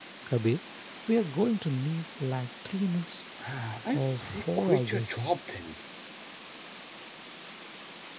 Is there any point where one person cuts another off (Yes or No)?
Yes